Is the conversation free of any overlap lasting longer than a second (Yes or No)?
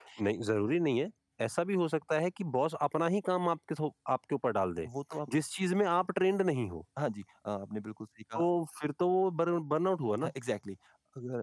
Yes